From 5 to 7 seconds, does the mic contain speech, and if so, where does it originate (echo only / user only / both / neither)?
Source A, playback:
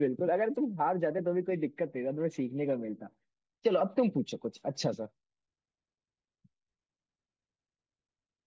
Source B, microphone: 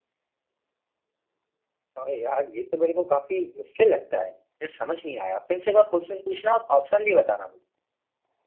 user only